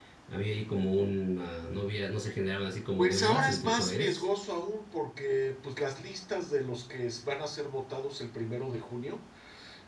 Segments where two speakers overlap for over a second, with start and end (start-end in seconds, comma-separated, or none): 3.0-4.2